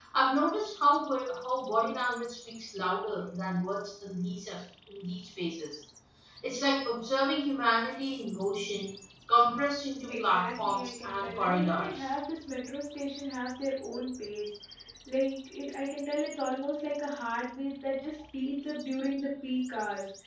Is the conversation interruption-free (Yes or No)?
No